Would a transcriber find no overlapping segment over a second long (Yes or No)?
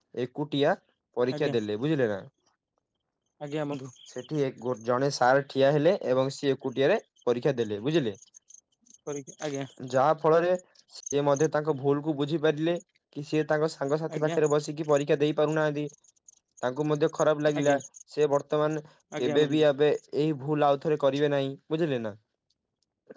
Yes